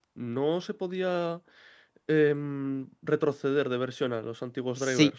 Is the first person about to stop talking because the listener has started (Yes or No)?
Yes